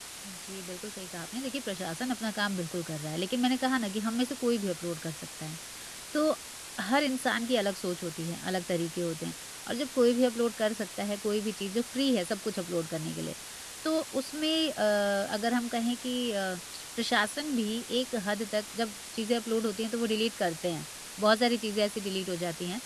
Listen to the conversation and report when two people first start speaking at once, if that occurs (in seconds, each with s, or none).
none